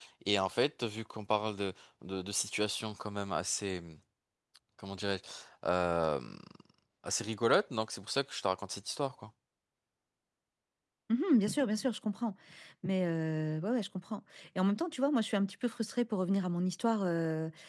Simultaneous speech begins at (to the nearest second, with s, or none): none